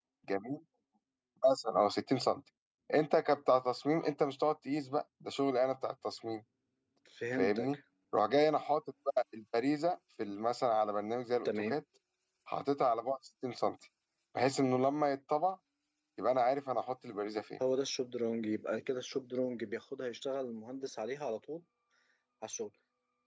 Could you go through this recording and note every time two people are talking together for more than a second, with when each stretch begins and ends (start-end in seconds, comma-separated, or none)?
none